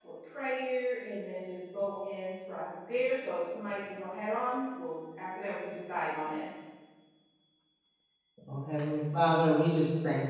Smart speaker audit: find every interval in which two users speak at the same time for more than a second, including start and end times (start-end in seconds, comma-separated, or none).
none